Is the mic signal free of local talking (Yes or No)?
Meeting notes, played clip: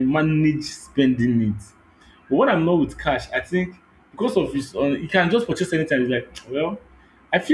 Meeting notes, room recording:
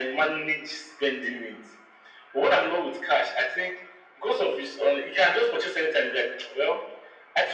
Yes